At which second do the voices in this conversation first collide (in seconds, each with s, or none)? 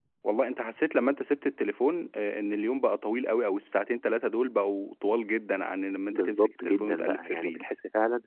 6.1 s